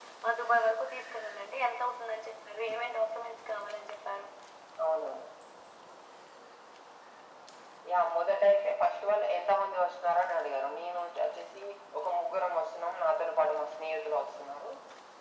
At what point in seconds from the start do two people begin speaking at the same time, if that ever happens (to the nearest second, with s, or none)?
none